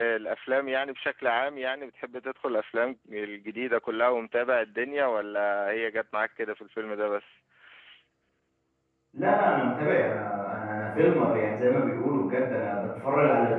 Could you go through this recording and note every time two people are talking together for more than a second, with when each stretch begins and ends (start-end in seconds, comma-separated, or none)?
none